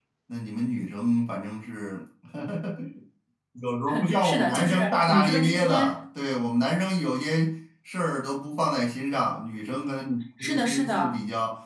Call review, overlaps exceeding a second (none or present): present